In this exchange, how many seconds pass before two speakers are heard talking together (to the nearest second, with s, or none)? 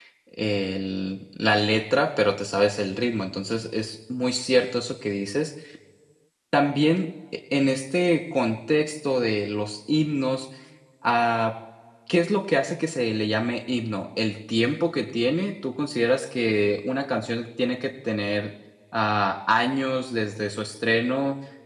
none